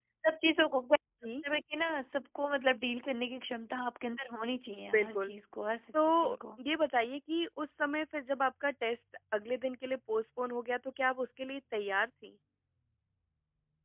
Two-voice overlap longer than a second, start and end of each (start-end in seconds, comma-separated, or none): none